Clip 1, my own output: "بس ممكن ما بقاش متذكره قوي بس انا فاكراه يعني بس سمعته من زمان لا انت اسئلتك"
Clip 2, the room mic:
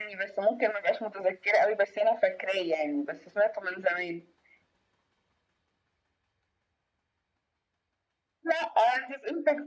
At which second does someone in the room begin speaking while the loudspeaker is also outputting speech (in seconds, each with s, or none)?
none